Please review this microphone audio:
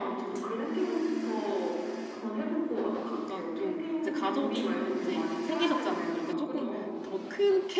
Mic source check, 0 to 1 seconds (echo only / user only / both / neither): echo only